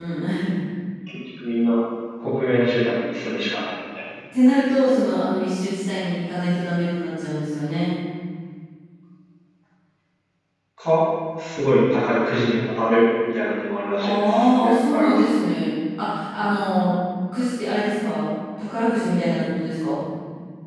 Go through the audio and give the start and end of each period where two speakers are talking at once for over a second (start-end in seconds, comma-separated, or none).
14.0-15.2